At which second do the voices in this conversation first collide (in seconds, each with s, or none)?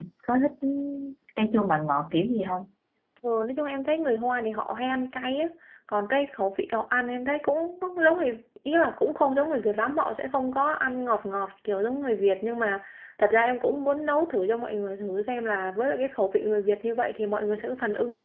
none